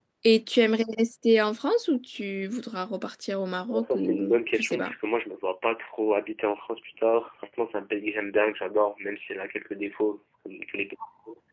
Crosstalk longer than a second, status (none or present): present